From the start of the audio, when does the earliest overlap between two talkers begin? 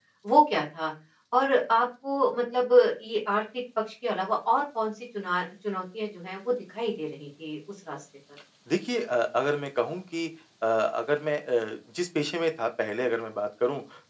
none

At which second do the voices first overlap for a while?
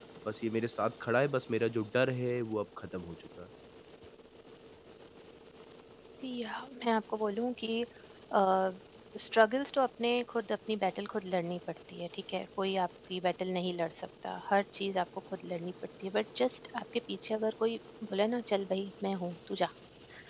none

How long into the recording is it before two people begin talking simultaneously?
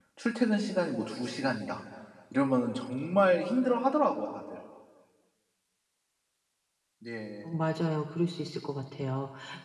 none

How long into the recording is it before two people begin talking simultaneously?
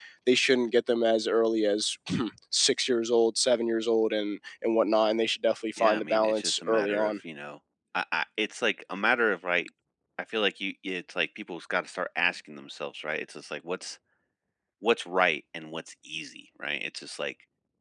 6 s

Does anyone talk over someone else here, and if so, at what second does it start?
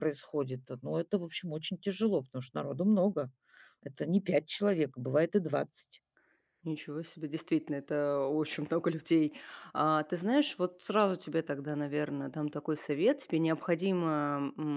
none

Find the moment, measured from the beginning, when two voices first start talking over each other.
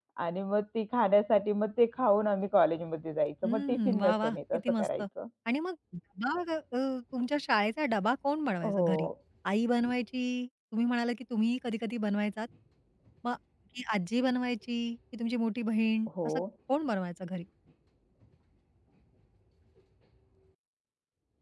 3 s

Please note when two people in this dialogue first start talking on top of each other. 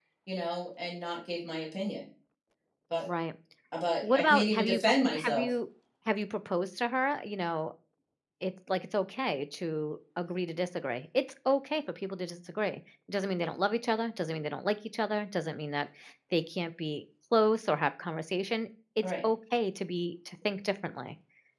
4 s

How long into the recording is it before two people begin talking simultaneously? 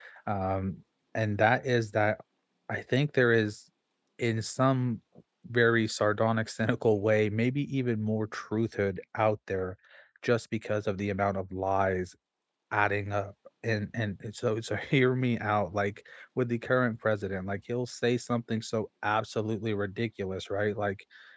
none

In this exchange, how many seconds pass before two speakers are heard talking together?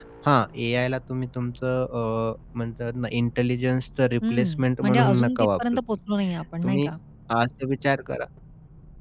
4 s

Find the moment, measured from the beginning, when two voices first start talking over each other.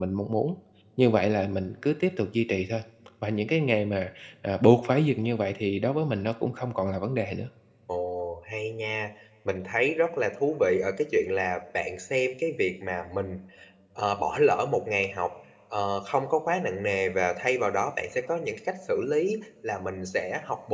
none

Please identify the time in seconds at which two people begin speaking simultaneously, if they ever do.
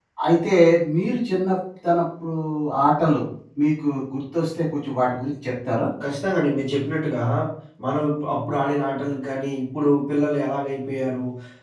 none

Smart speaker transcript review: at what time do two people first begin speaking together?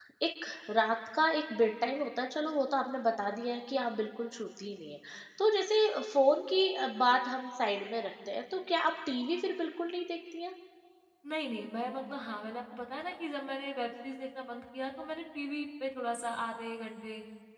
none

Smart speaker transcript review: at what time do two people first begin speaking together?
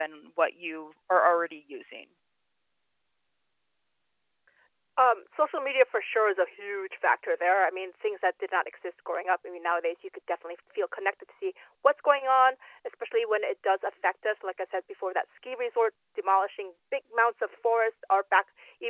none

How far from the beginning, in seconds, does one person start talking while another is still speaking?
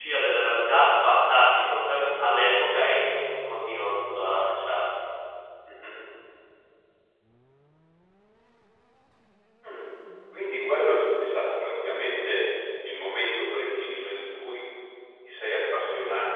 none

